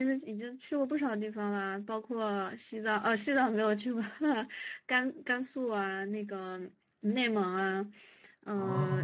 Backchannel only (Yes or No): Yes